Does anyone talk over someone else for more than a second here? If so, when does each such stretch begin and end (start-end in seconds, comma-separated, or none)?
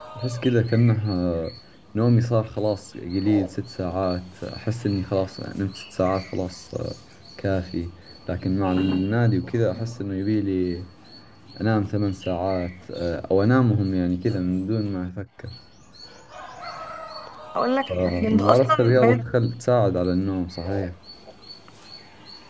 17.9-19.2